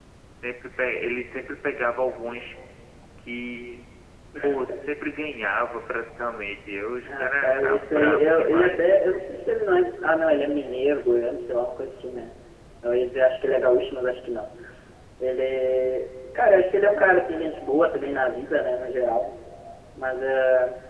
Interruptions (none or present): present